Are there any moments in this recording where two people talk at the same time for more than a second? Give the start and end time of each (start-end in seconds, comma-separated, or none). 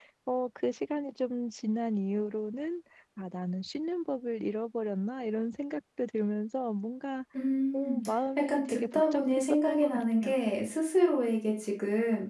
8.4-10.3